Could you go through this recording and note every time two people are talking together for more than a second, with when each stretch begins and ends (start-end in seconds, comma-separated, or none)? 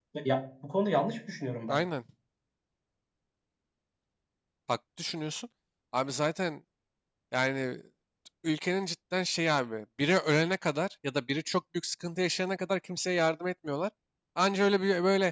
none